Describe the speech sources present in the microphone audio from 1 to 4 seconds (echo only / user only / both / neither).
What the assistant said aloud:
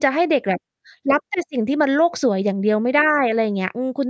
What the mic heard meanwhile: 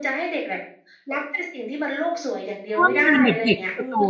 both